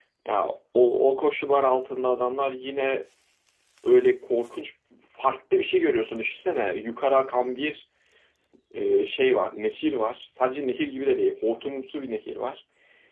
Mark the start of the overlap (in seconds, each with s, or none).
none